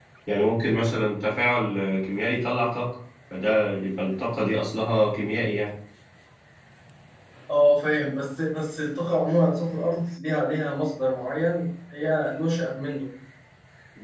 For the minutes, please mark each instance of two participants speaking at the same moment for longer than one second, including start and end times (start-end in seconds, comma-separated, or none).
none